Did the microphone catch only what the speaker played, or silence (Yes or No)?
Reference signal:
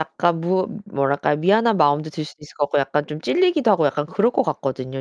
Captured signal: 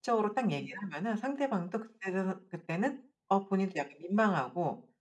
No